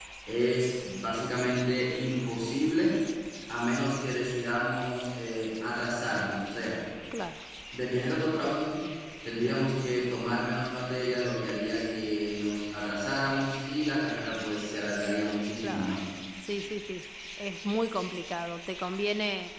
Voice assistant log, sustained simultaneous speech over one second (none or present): none